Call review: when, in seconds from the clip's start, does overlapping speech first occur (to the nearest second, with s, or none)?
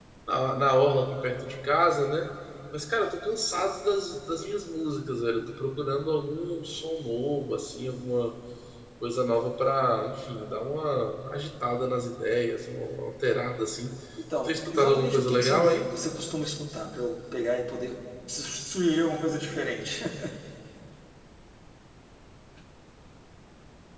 14 s